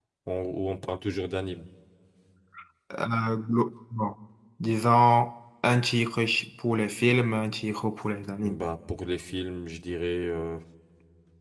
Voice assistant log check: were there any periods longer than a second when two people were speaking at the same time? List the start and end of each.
none

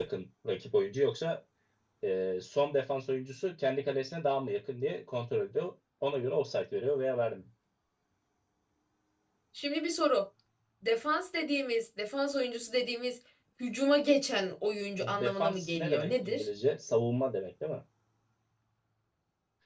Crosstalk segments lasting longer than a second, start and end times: 15.2-16.4

